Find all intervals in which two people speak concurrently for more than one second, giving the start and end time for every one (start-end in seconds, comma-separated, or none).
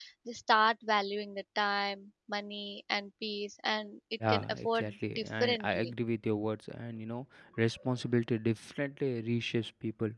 4.3-5.9